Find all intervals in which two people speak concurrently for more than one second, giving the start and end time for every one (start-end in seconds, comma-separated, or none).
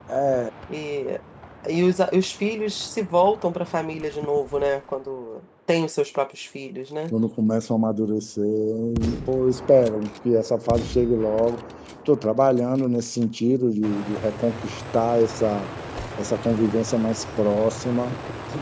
none